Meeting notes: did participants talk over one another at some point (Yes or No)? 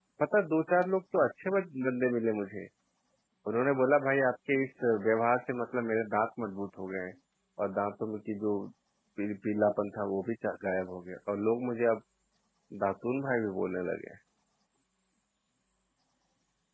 No